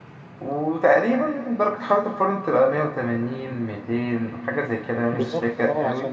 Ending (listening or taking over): taking over